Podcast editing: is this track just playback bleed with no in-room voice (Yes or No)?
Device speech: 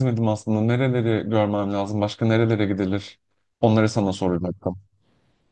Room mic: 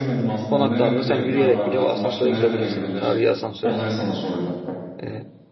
No